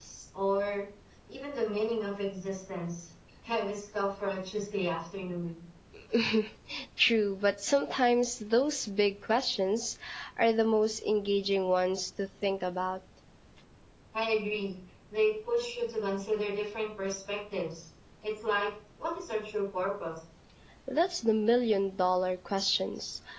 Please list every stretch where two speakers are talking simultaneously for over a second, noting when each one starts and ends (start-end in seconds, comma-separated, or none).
none